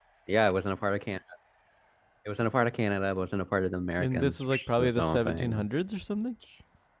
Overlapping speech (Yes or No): Yes